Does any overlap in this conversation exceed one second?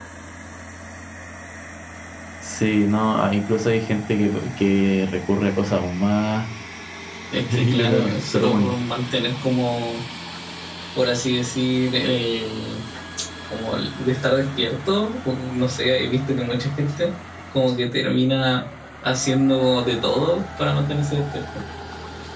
Yes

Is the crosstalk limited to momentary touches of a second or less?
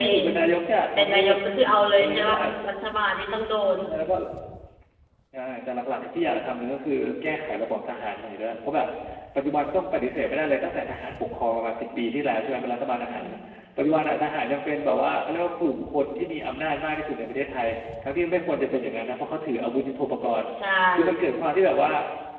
Yes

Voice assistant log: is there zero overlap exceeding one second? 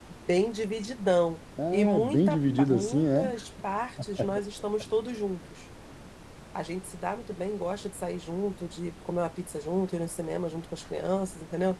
No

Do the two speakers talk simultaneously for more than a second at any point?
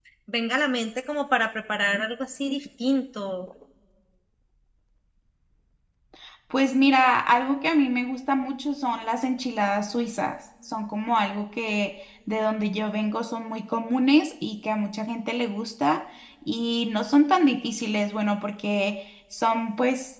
No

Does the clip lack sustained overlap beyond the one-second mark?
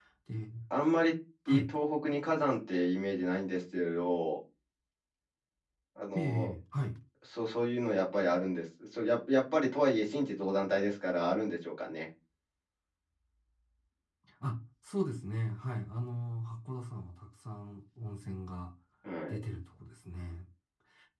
Yes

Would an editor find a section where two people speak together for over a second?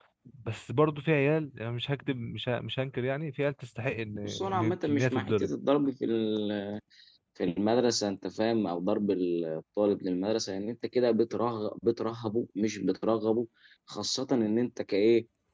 Yes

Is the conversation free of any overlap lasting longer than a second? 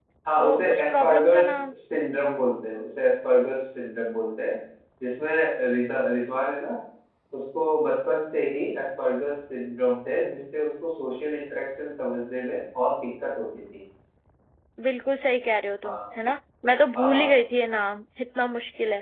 No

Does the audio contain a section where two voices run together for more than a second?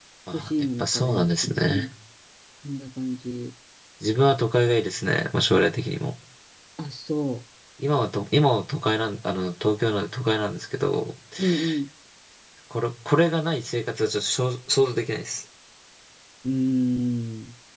Yes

